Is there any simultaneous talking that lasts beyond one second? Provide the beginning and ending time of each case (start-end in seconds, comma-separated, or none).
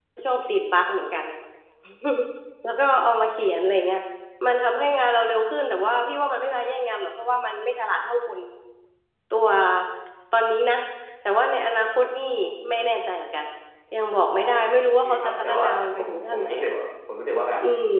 15.0-16.7